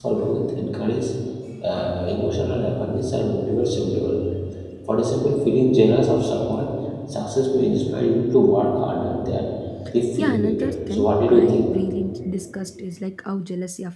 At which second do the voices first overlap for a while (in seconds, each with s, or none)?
10.2 s